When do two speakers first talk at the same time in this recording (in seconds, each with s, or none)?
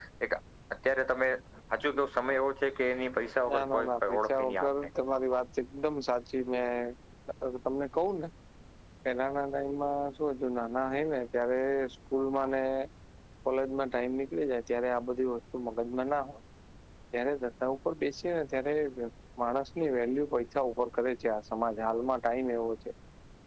3.5 s